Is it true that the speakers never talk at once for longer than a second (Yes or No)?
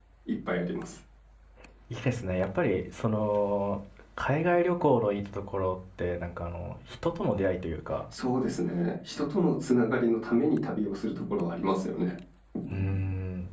Yes